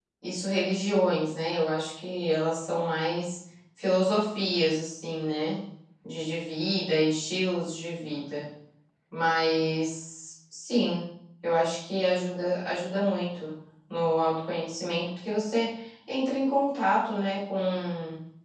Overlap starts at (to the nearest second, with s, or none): none